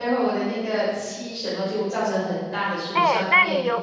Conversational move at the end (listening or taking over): taking over